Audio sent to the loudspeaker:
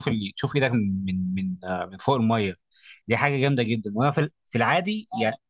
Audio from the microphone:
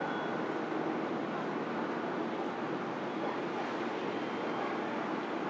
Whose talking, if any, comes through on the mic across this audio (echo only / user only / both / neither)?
neither